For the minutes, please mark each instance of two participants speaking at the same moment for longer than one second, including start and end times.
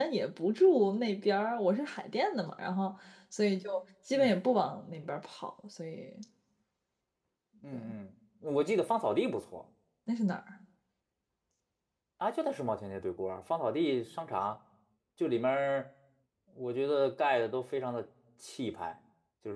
none

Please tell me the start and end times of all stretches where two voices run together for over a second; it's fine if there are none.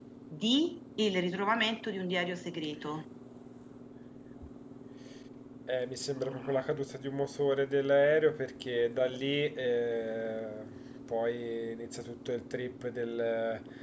none

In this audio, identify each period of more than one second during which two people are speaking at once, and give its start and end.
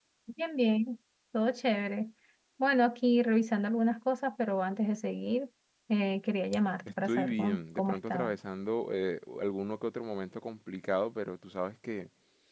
7.0-8.3

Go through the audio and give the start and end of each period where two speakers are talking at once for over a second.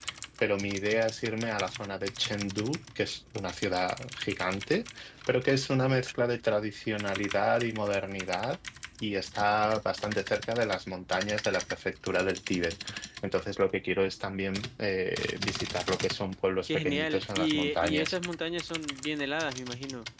16.7-18.2

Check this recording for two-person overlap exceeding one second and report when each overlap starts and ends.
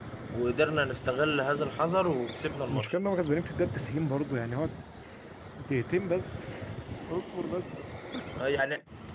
none

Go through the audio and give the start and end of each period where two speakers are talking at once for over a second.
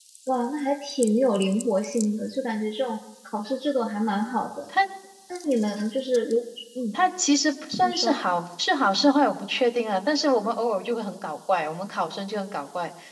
none

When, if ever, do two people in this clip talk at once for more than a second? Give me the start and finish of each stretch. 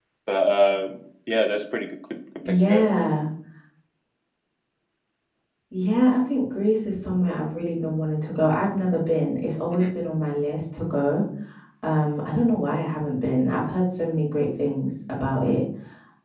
none

